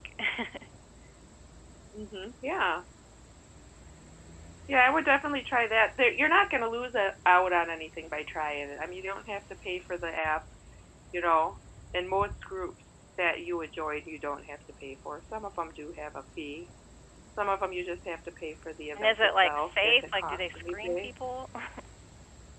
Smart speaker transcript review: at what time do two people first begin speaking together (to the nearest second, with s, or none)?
19 s